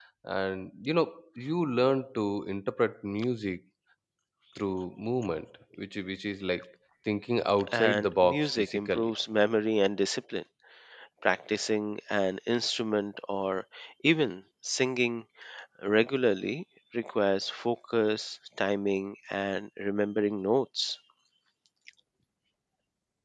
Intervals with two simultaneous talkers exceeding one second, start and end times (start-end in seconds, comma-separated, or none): 7.7-9.1